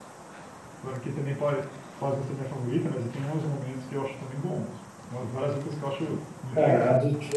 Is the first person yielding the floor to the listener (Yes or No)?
Yes